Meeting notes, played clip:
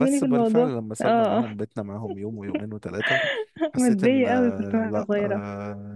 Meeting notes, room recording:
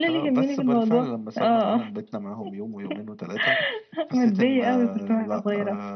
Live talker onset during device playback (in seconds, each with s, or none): none